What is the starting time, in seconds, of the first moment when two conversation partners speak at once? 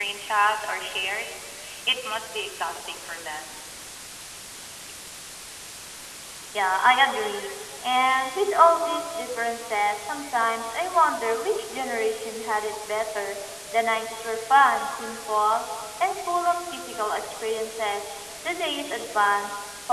none

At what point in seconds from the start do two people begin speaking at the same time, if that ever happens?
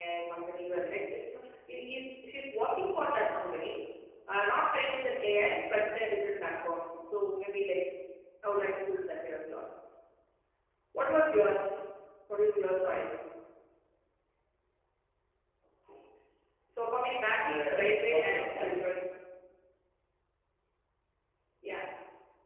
17.4 s

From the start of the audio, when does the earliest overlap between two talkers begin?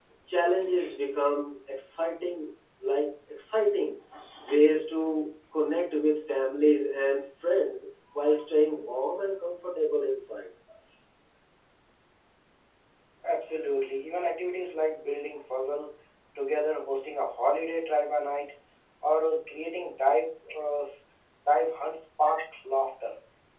none

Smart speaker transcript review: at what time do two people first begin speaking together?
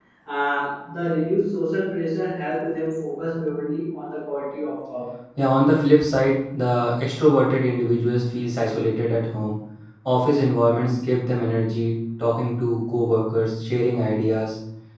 none

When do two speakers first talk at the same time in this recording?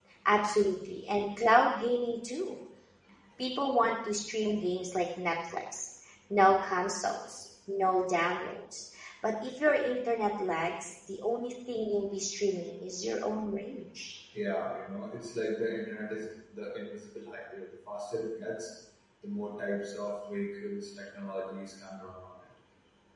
none

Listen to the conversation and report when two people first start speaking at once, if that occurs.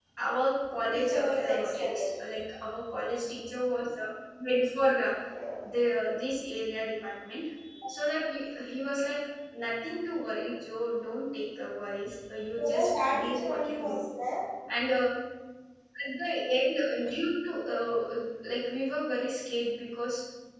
0.9 s

